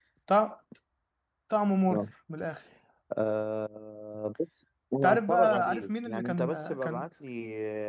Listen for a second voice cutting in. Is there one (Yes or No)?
Yes